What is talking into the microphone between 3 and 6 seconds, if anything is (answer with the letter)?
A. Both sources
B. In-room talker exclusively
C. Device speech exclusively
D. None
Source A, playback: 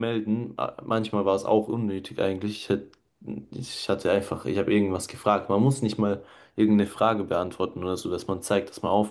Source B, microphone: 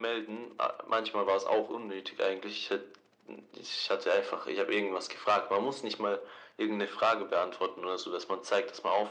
C